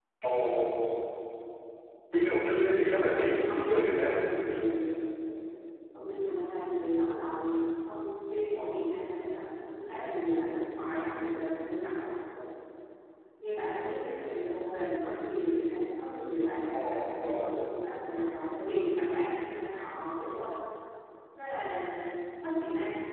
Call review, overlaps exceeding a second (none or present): present